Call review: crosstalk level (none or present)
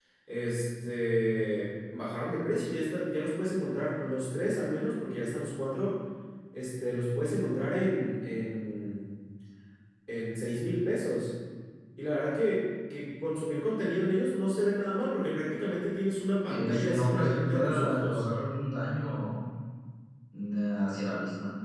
present